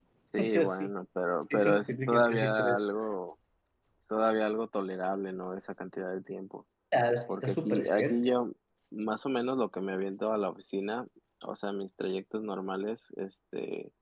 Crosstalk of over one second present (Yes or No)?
Yes